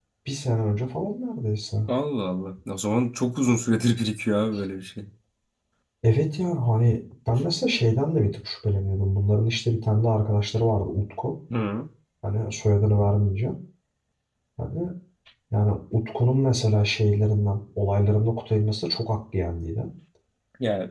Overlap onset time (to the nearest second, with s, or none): none